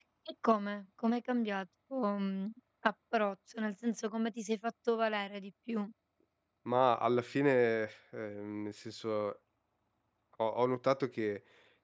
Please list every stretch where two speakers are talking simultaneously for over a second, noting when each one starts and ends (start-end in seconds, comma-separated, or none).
none